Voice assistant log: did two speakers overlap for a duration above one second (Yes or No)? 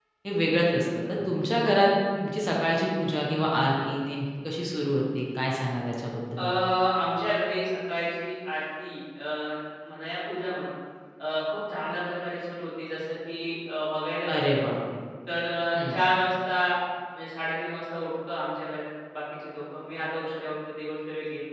No